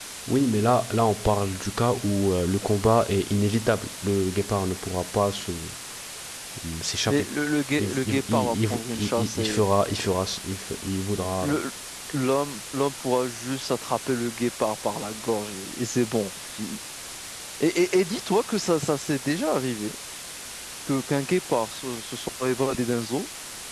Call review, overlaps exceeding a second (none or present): present